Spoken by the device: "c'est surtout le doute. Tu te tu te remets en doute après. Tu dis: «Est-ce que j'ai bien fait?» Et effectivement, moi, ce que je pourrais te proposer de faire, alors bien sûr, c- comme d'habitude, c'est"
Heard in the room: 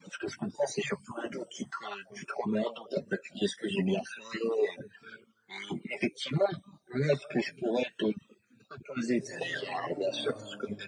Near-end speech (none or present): present